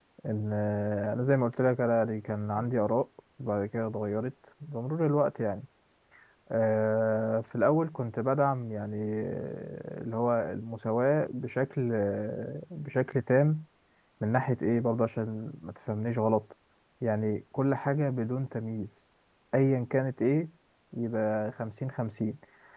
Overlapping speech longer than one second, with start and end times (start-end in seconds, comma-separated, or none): none